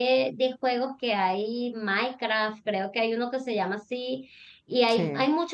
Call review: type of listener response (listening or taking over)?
listening